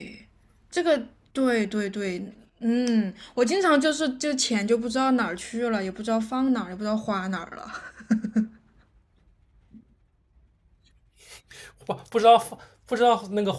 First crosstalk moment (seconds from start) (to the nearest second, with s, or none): none